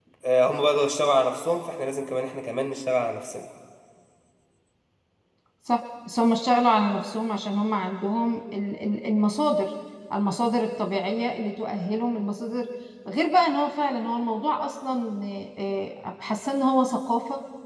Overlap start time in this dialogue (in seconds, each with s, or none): none